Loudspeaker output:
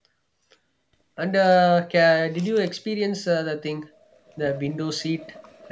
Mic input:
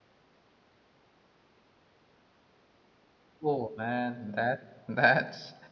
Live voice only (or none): oh man that that's